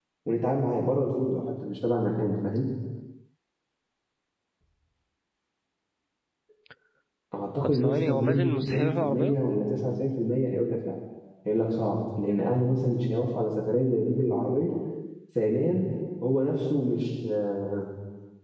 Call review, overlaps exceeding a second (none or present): present